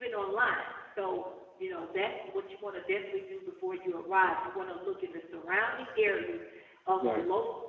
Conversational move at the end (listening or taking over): listening